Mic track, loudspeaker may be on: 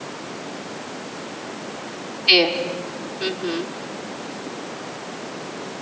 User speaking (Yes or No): Yes